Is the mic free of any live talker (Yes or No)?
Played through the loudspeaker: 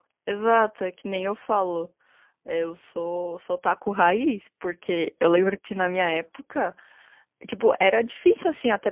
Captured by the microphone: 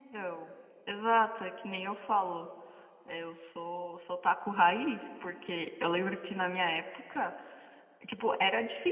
Yes